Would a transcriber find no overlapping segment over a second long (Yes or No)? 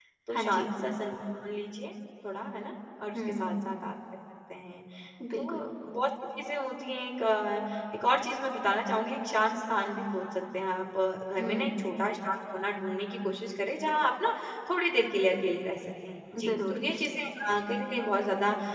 Yes